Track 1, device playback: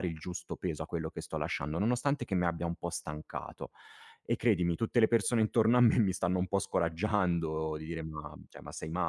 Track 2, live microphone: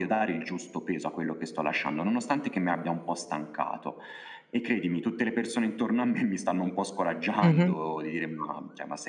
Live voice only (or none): Mh-mh.